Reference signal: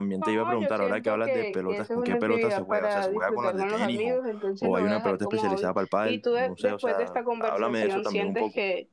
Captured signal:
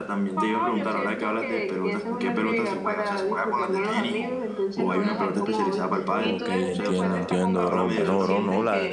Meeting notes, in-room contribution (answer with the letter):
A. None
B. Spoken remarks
B